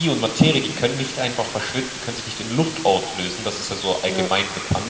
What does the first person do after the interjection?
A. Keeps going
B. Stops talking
A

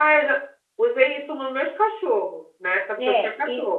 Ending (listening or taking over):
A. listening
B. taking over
B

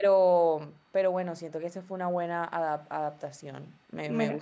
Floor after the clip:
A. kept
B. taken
B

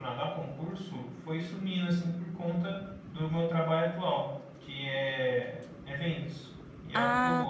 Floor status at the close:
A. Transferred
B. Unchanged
A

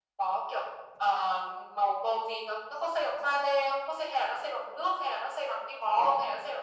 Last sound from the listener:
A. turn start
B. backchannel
A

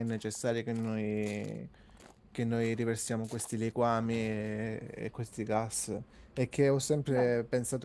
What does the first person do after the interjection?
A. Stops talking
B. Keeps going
B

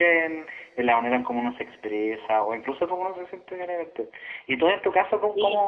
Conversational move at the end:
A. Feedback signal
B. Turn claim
A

